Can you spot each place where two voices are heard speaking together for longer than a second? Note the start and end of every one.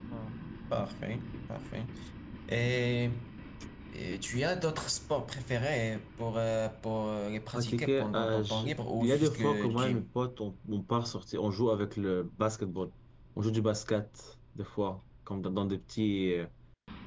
7.5-10.0

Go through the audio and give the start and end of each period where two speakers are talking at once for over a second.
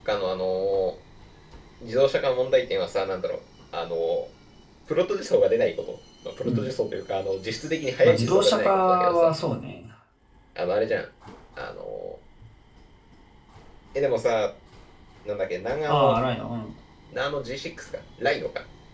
8.0-9.3

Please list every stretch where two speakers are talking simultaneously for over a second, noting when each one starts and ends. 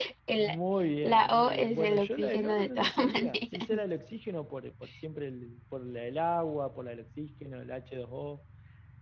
1.0-3.8

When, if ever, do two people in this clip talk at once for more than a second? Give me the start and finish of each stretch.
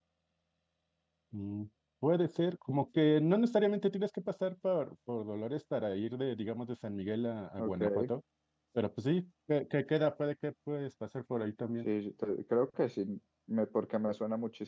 none

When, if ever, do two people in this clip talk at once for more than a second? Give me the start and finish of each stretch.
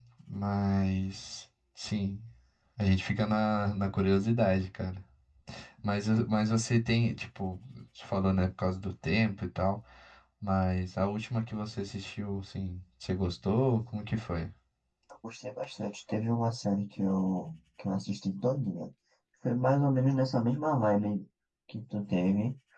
none

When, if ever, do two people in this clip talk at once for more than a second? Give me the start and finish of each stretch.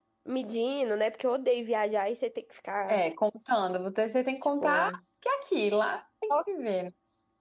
none

